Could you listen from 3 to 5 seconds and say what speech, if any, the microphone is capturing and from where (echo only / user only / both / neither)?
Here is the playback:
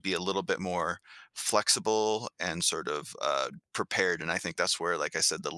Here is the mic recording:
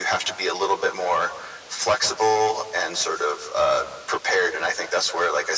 echo only